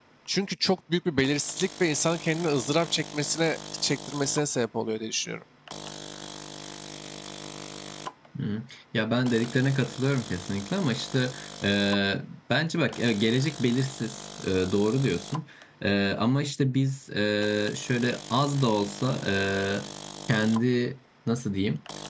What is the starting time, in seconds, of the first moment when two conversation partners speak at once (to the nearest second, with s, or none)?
none